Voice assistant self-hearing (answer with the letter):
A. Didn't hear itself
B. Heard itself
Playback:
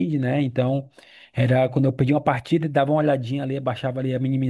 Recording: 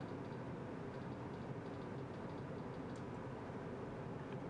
A